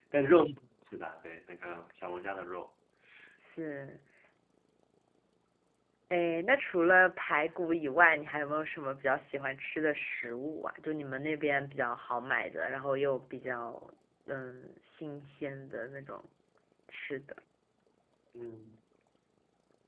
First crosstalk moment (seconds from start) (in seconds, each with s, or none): none